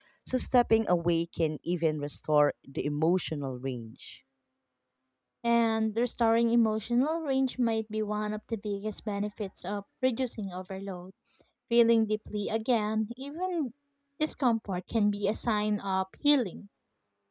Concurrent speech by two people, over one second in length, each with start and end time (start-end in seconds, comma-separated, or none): none